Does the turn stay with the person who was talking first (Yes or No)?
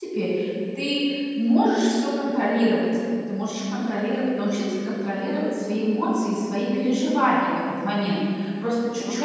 No